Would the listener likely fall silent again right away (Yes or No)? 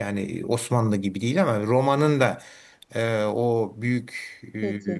Yes